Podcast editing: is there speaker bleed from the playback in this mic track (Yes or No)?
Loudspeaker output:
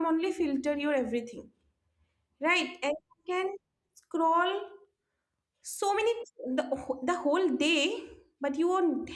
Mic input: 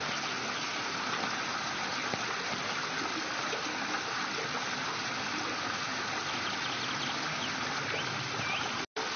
No